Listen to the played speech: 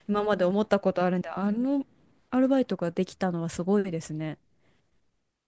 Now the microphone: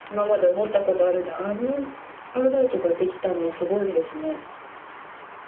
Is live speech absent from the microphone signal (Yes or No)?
Yes